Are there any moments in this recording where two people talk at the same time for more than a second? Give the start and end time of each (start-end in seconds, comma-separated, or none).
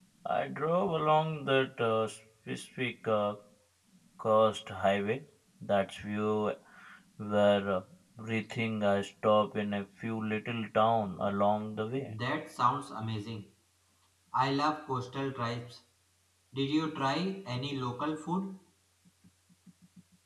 none